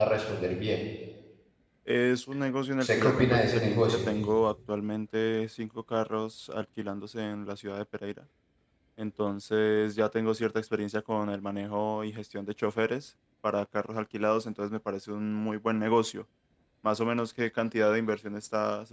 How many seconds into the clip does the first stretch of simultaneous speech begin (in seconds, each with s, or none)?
2.8 s